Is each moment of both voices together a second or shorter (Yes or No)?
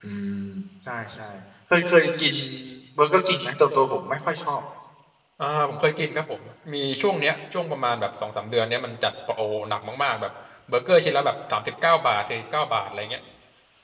Yes